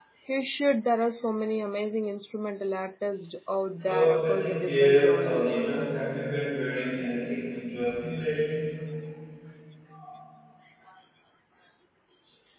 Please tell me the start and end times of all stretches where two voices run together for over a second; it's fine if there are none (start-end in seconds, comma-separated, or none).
3.8-5.6